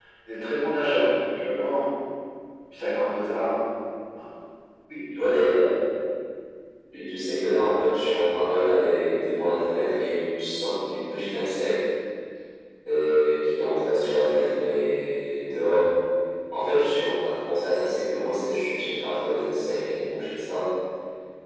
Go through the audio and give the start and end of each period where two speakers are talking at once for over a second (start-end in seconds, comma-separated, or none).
none